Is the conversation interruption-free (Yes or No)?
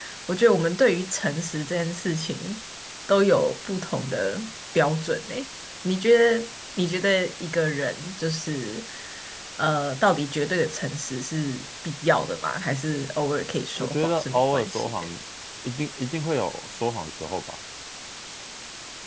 No